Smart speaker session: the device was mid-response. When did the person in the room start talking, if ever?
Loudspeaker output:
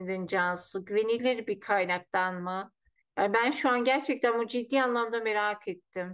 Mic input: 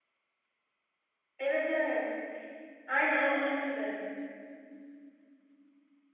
1.4 s

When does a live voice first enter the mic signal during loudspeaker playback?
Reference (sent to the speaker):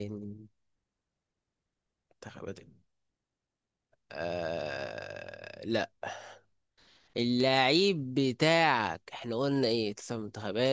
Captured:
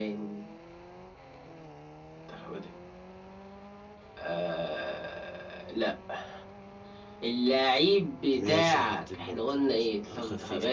8.3 s

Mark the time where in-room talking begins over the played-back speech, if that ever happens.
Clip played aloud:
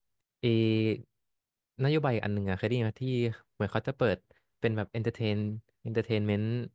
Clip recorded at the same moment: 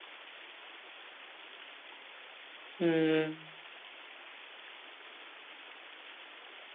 2.8 s

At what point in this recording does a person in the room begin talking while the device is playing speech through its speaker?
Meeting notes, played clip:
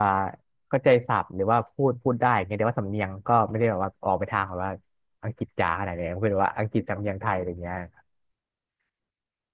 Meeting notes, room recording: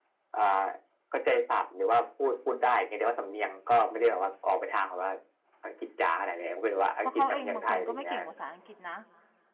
7.0 s

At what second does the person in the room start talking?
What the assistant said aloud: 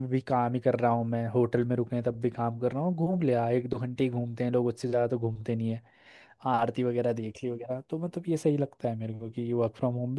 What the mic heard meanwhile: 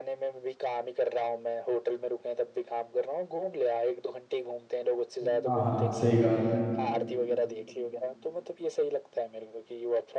5.2 s

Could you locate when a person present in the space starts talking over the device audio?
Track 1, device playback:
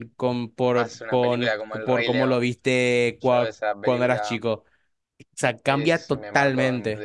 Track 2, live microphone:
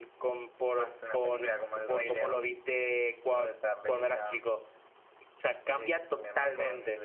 none

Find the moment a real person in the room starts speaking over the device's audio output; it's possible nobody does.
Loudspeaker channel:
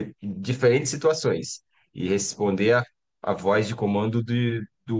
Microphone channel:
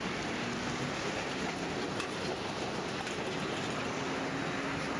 none

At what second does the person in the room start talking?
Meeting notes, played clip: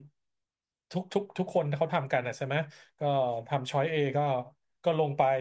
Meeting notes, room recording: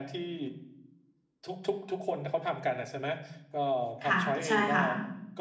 4.0 s

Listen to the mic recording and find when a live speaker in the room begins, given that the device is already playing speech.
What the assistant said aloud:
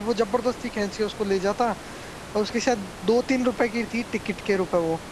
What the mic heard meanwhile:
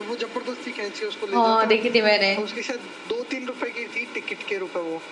1.3 s

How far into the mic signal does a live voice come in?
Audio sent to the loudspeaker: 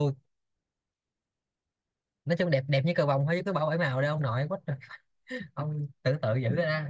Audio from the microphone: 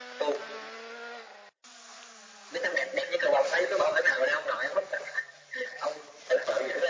none

